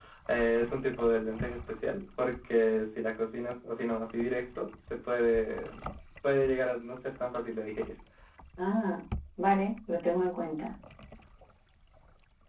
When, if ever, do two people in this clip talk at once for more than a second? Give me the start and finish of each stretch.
none

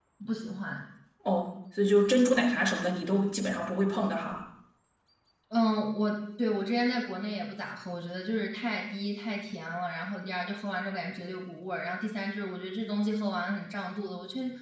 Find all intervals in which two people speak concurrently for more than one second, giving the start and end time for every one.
none

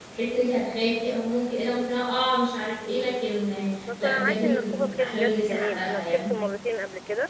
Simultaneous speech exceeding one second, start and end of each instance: 4.0-6.3

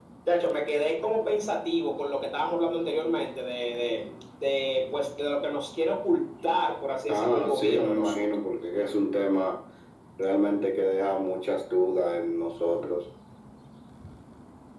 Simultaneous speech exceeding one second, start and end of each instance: 7.1-8.3

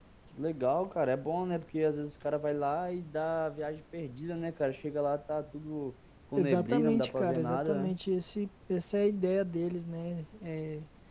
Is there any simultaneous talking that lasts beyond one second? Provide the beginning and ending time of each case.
6.4-7.9

